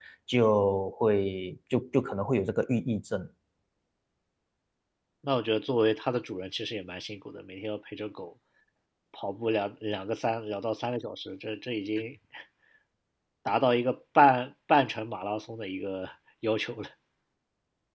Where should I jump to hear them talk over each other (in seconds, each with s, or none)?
none